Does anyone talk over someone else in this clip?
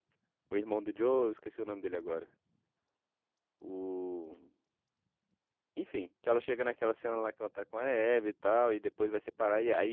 No

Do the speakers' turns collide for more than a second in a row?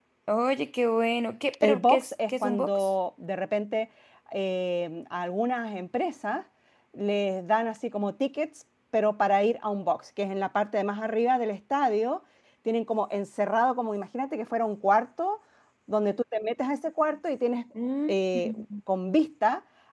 Yes, from 1.6 s

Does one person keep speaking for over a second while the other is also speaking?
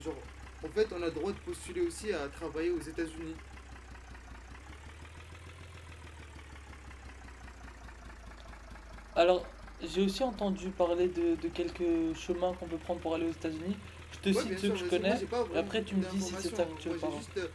Yes, from 14.3 s

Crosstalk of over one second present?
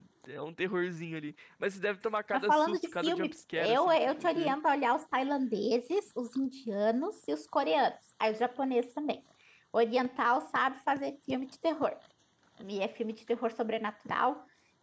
Yes, from 2.3 s

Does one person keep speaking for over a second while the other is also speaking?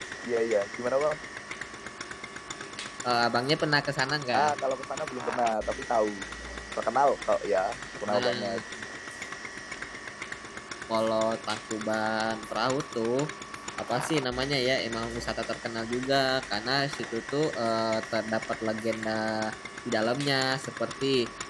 No

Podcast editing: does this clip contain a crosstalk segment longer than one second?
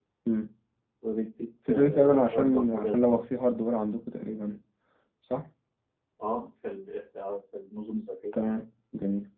Yes, from 1.7 s

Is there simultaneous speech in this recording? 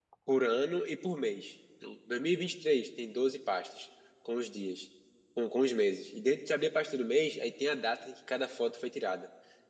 No

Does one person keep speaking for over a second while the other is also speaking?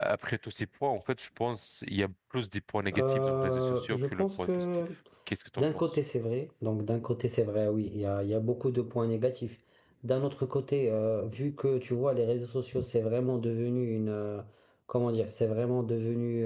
Yes, from 2.9 s

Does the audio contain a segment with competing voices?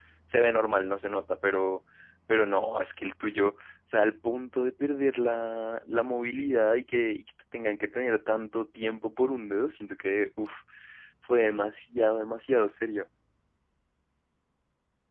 No

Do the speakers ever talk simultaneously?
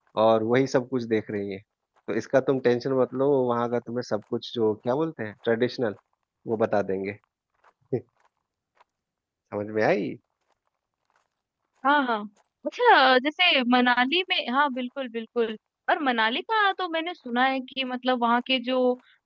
No

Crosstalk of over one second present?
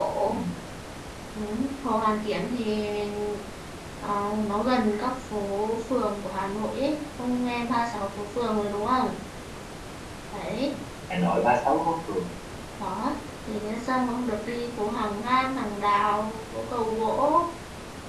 No

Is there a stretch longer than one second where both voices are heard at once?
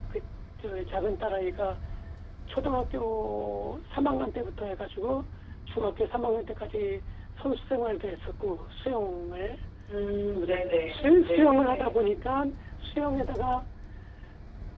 Yes, from 10.3 s

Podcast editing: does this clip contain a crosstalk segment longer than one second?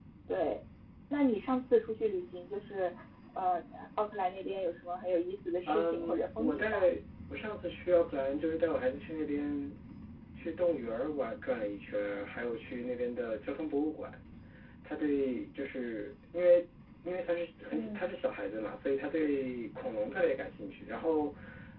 Yes, from 5.7 s

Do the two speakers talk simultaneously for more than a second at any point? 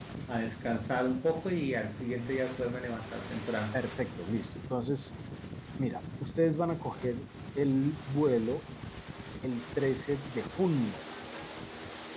No

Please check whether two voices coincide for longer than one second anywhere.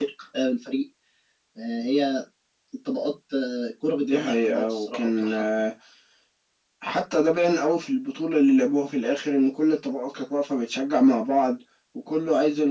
Yes, from 4.0 s

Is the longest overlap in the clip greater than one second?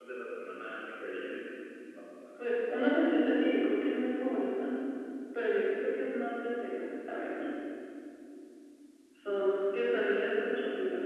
No

